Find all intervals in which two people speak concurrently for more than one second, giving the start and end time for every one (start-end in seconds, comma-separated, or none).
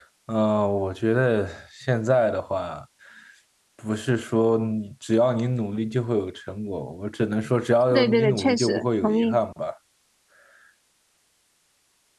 7.9-9.4